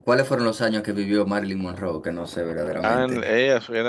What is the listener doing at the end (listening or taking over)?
taking over